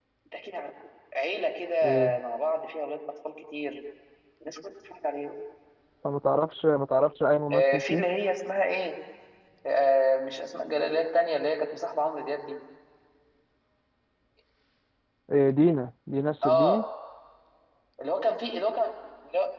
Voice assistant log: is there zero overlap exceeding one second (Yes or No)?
Yes